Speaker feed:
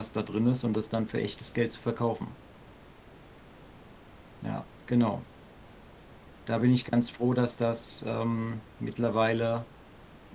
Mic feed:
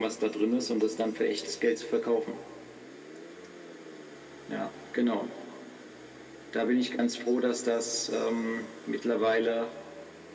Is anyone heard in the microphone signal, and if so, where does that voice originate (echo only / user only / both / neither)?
echo only